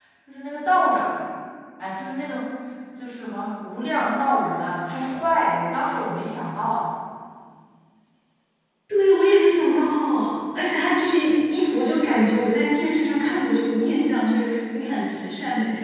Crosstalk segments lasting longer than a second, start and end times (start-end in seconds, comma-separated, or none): none